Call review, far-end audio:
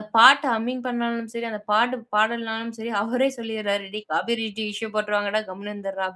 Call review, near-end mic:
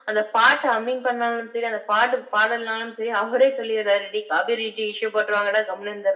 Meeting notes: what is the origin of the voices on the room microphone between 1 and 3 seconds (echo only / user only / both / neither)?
echo only